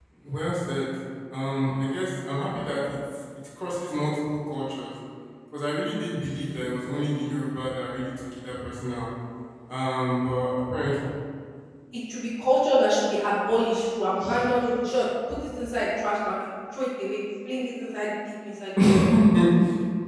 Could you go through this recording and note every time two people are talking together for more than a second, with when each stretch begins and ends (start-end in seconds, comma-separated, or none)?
none